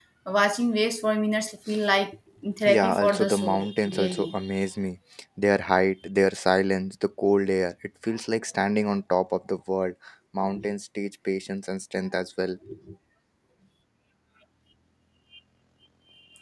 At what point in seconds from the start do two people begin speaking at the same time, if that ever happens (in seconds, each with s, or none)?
2.6 s